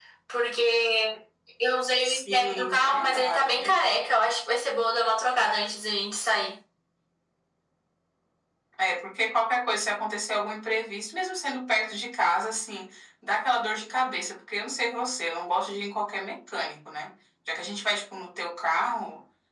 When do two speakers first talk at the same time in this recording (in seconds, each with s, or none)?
2.0 s